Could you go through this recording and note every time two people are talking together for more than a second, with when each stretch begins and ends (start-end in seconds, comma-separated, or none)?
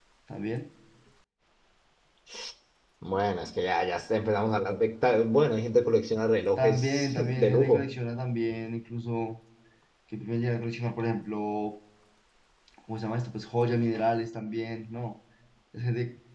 6.6-8.0